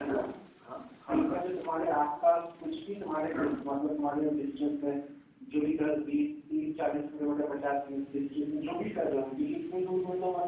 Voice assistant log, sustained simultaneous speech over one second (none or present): none